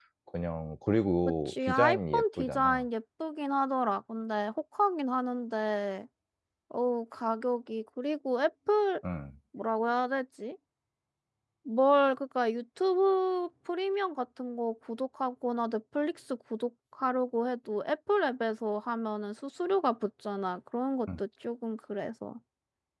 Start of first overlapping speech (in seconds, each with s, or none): 1.5 s